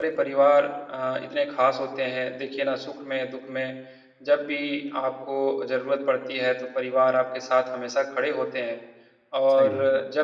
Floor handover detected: No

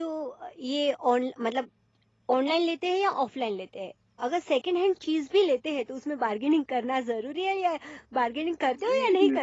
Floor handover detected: Yes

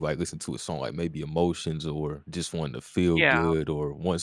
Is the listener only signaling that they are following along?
Yes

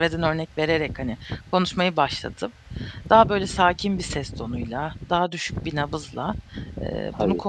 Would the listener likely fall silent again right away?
Yes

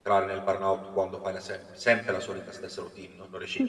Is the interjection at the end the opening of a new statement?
Yes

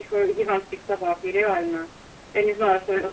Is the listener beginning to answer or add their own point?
No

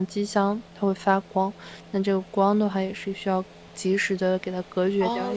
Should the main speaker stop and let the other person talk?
Yes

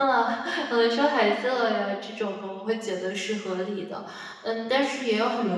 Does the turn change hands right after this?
No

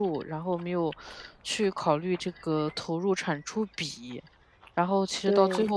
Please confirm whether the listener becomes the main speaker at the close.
No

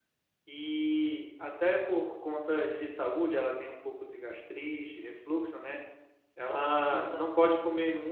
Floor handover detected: No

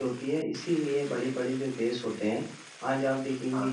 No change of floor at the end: Yes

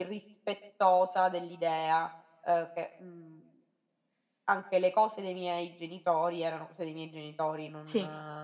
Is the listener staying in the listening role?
Yes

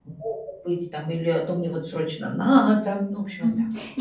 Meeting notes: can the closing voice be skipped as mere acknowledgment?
No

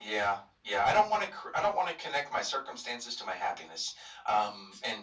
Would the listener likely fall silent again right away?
Yes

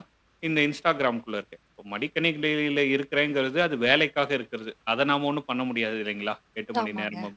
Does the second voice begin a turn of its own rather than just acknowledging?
No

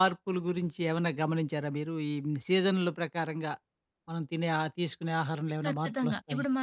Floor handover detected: Yes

